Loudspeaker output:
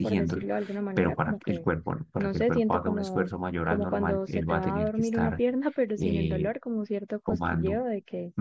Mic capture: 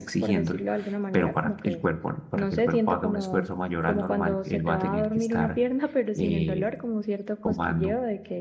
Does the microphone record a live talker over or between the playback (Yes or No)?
No